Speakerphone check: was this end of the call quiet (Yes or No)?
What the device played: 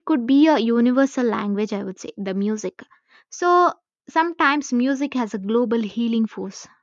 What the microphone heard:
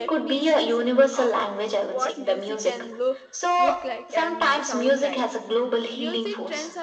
No